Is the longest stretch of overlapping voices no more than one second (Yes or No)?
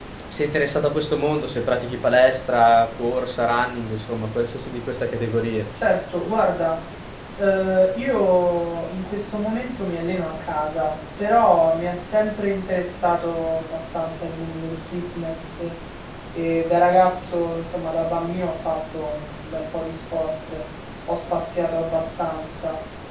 Yes